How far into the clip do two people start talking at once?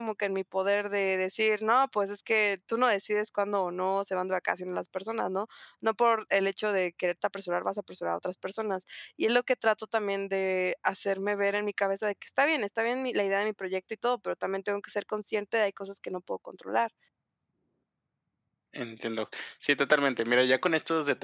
none

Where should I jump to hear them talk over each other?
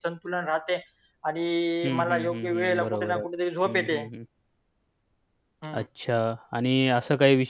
1.8 s

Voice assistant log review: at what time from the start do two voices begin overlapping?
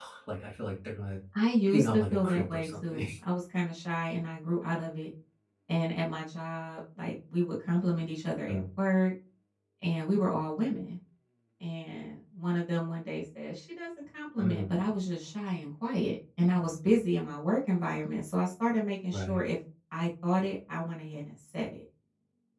1.7 s

